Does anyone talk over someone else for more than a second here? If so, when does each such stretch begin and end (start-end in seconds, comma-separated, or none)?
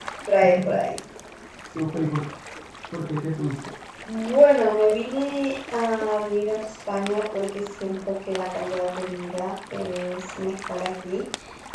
none